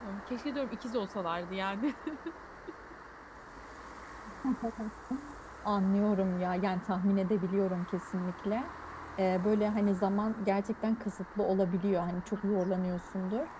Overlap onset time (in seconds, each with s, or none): none